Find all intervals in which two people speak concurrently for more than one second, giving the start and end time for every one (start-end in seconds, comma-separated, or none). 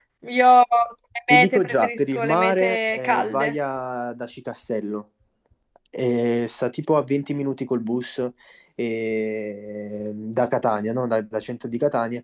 1.3-3.5